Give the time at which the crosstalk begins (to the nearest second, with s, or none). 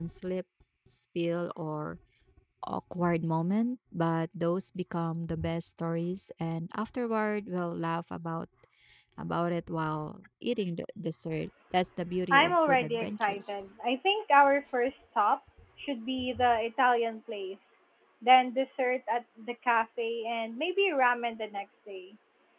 12 s